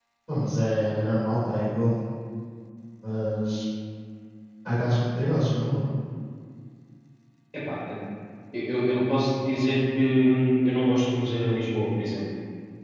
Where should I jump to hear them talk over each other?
none

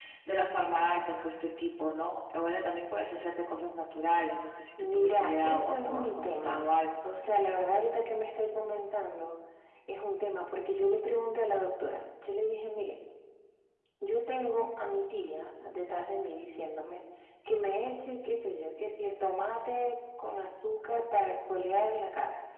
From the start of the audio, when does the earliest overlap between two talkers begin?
4.8 s

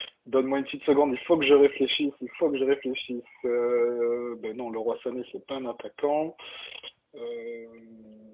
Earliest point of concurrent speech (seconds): none

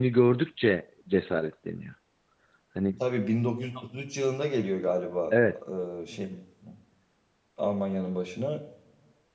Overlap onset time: none

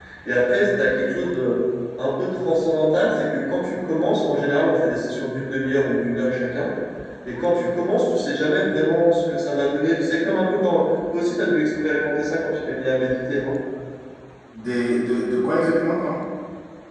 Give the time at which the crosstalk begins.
none

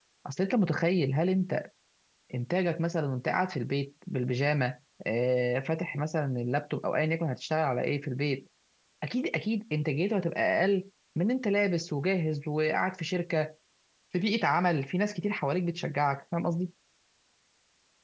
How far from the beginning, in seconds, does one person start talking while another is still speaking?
none

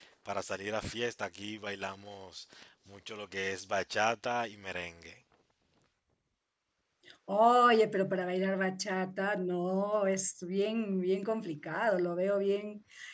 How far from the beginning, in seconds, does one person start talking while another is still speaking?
none

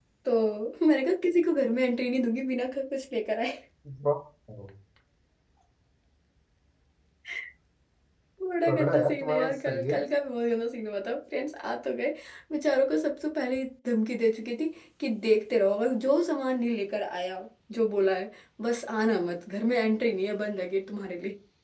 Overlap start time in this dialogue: 8.7 s

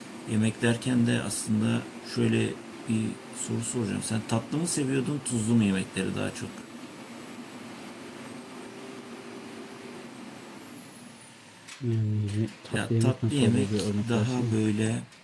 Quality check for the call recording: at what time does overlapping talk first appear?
12.7 s

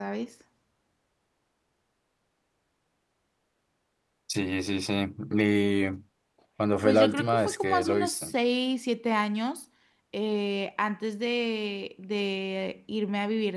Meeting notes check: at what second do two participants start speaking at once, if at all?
6.8 s

